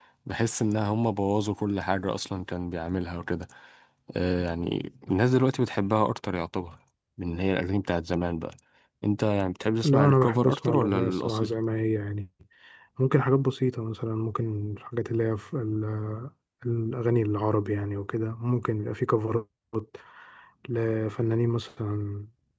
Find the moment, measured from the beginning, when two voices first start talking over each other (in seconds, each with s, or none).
9.8 s